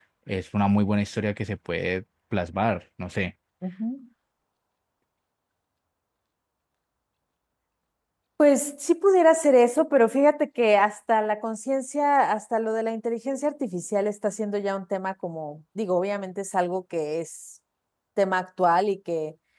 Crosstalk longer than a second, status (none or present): none